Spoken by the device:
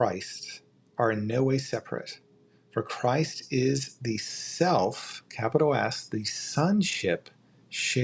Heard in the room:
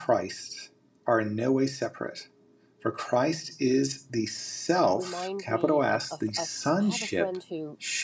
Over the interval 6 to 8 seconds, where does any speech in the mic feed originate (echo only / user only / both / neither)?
both